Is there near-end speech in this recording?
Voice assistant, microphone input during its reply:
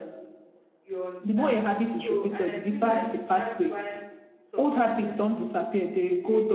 Yes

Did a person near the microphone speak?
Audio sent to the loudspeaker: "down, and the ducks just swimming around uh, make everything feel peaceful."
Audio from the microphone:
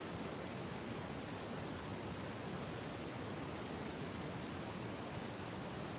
No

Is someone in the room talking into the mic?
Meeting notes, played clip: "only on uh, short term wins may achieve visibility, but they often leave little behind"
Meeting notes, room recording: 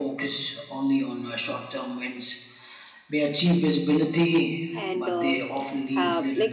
Yes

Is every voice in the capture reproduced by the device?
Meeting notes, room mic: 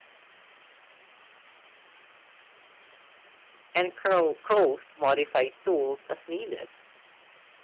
No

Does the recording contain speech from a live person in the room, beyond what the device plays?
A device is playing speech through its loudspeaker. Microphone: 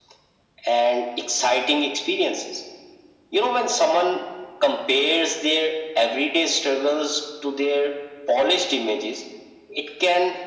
No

